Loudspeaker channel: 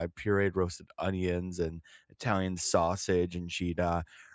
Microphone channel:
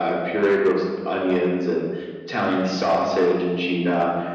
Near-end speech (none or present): none